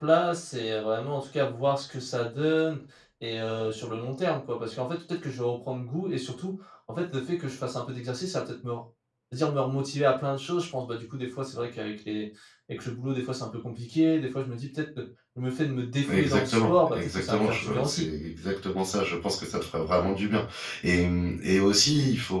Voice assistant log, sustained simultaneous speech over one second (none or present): present